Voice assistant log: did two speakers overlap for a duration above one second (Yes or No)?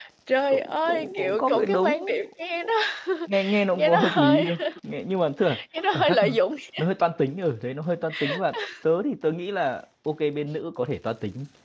Yes